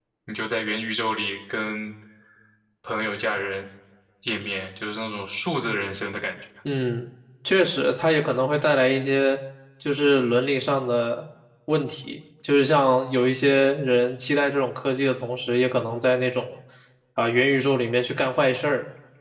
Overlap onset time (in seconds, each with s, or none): none